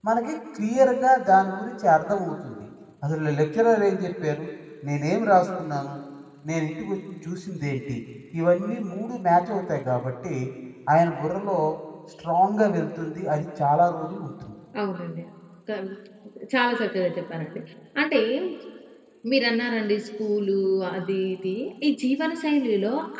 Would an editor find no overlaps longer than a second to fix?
Yes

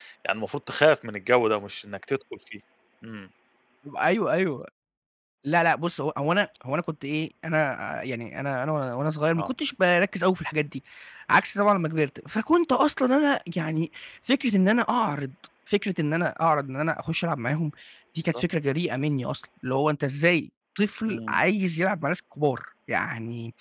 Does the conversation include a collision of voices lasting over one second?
No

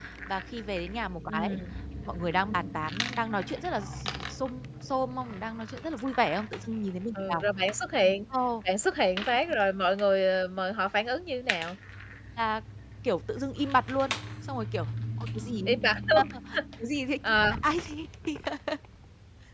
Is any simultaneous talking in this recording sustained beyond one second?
No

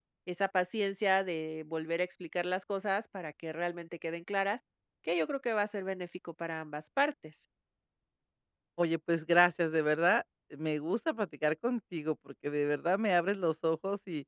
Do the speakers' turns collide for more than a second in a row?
No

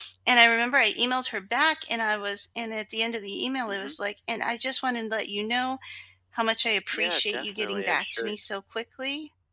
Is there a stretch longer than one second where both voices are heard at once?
Yes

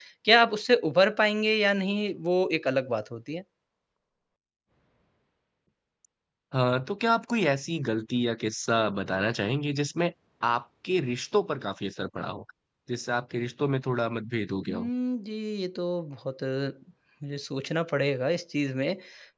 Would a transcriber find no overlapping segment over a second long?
Yes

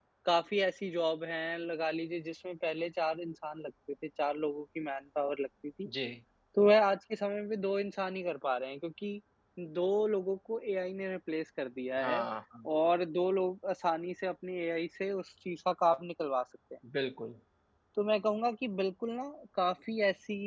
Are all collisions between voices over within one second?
Yes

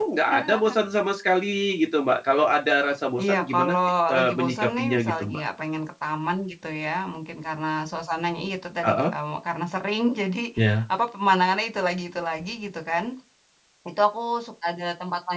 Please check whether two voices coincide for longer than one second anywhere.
Yes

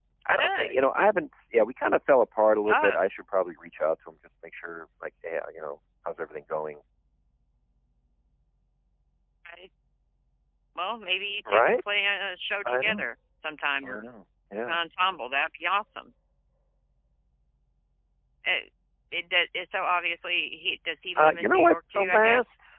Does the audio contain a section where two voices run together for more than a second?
Yes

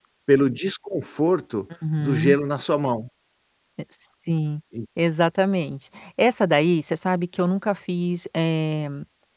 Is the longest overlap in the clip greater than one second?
No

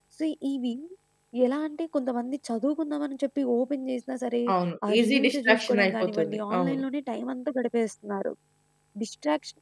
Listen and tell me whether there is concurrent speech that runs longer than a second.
Yes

